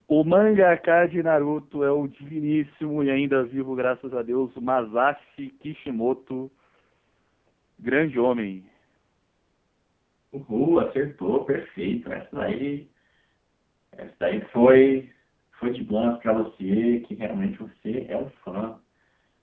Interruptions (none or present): none